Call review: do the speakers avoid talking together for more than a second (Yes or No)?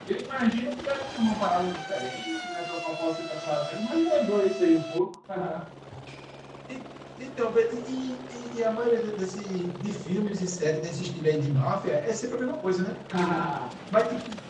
Yes